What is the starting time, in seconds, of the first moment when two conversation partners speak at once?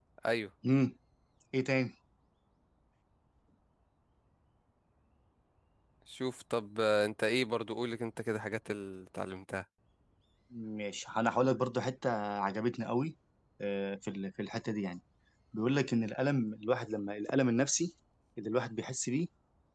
none

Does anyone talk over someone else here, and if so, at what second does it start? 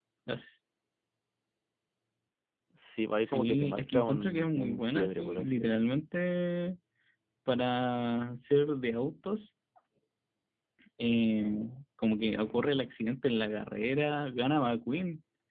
3 s

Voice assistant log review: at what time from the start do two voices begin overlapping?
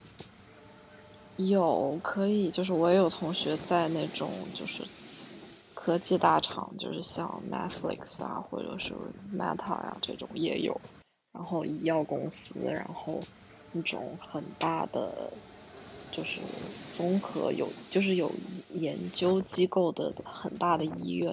none

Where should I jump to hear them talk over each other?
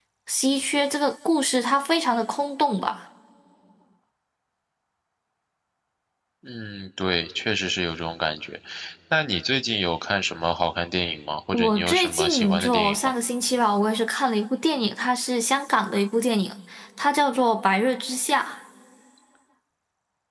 12 s

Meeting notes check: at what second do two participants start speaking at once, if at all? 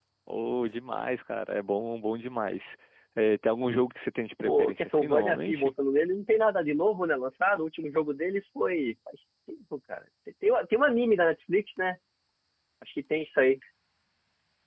4 s

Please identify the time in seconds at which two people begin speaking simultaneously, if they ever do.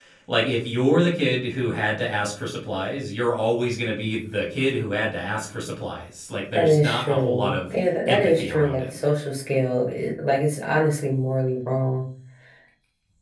7 s

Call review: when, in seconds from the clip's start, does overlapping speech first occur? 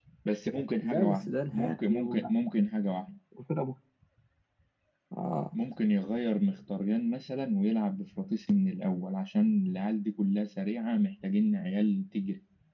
1 s

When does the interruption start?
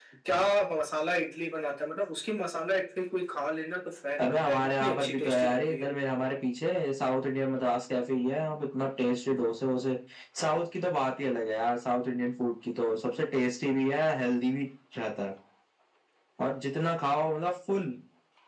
4 s

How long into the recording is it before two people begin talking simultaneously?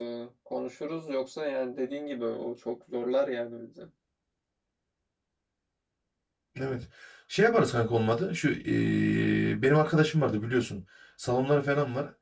none

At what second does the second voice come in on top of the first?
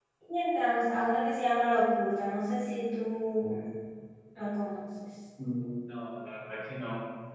none

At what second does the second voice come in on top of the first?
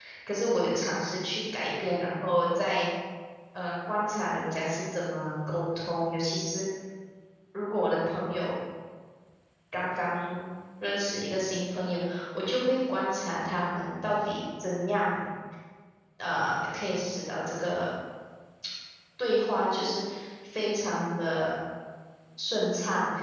none

